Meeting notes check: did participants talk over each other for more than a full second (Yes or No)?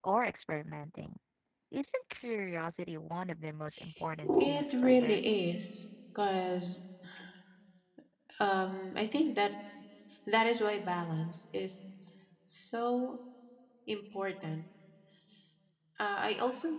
Yes